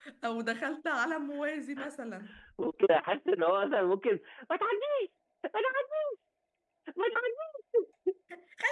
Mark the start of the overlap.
none

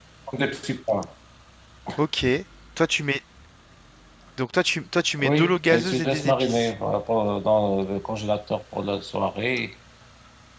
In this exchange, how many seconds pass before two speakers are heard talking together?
5.2 s

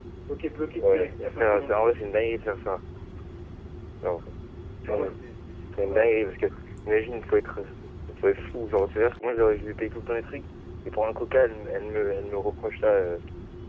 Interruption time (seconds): 0.7 s

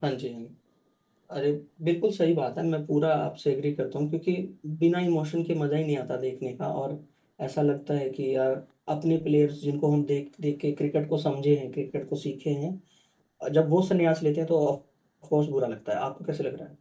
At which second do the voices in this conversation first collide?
none

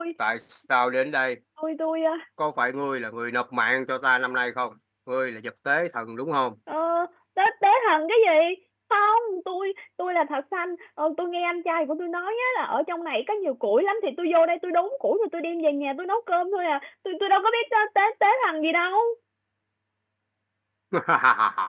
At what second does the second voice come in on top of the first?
none

